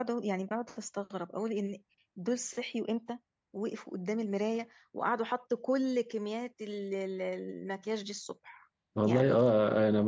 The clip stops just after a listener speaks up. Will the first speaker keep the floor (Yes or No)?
No